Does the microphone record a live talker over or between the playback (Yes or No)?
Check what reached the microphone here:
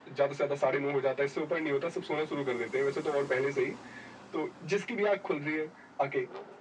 No